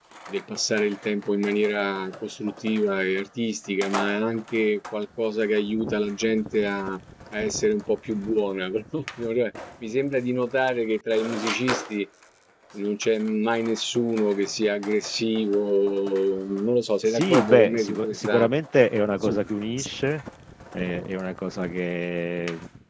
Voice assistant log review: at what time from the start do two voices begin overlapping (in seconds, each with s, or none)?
17.0 s